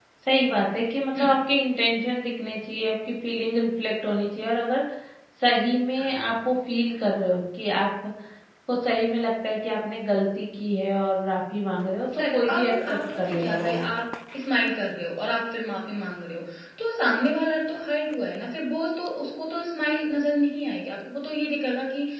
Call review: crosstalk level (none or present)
present